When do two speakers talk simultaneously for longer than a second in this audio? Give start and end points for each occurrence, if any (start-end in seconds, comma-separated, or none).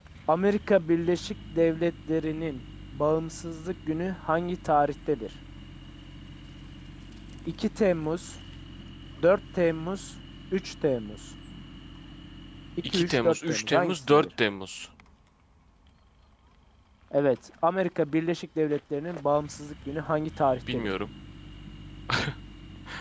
12.9-14.3